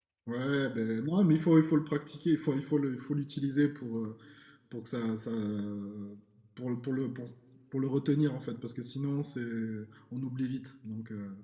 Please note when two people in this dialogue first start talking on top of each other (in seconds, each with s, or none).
none